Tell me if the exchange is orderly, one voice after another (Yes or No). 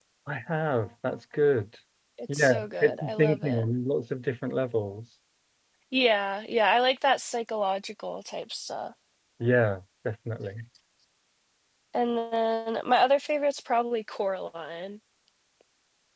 No